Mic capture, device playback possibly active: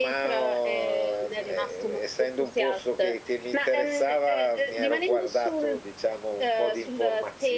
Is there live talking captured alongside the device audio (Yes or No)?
No